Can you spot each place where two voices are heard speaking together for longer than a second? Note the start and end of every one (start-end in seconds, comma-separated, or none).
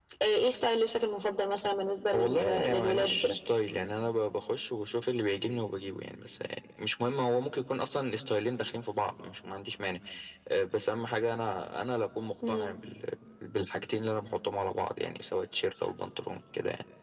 2.1-3.4